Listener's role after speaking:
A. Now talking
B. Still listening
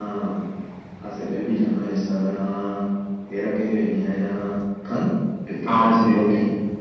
A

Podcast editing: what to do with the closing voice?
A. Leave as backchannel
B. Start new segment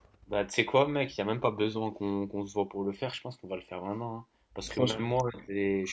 A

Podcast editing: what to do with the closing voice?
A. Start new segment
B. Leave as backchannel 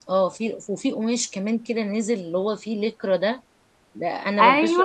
A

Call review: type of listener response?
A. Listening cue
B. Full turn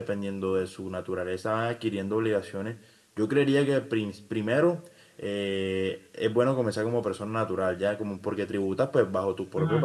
A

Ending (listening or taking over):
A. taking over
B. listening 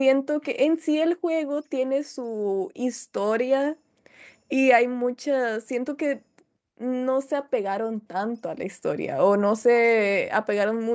B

